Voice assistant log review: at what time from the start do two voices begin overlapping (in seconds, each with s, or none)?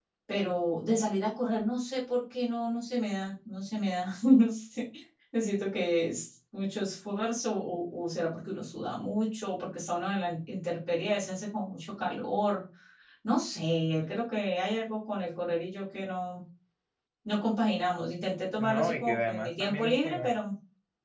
18.6 s